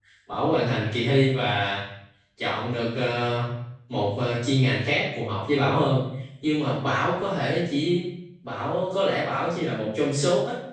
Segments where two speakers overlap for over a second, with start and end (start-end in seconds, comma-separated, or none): none